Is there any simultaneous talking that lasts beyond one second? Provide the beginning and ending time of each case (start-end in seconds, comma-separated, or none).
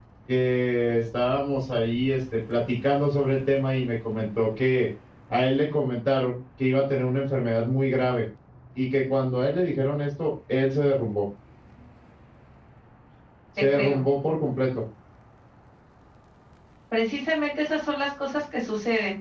none